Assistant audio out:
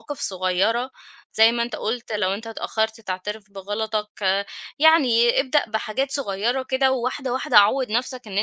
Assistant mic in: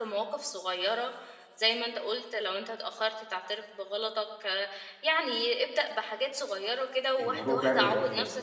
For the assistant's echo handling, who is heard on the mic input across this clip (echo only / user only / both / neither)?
both